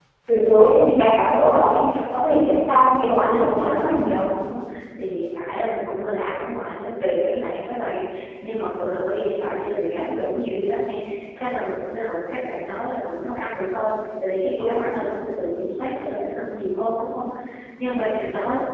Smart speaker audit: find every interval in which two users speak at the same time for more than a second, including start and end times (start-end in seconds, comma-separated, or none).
3.0-4.3